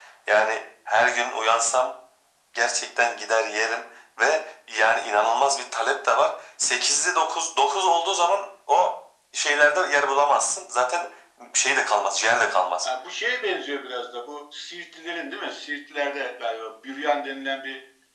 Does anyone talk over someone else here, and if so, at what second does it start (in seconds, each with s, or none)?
none